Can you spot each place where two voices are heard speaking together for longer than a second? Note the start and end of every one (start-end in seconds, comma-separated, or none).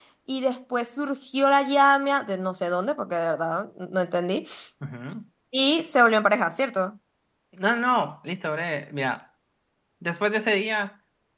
none